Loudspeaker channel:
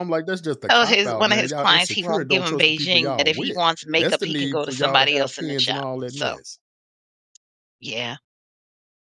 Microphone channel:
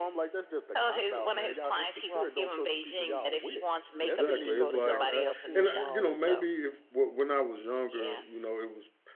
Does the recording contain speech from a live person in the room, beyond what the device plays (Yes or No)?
Yes